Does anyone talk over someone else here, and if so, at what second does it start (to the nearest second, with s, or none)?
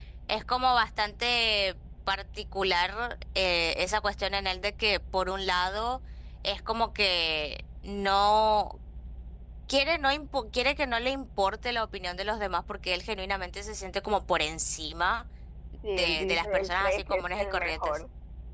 16 s